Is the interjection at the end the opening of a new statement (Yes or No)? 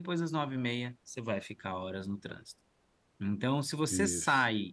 No